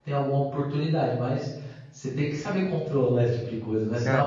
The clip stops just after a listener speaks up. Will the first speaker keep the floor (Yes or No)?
No